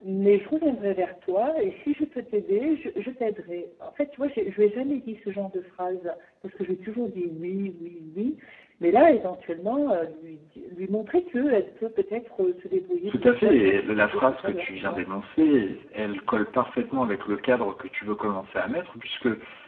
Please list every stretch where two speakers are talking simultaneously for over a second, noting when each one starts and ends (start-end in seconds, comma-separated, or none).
13.1-15.0